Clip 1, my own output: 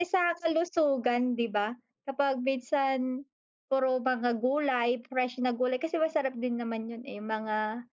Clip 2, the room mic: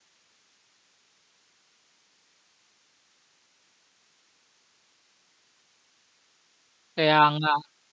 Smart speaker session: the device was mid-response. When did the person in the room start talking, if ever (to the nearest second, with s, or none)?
7 s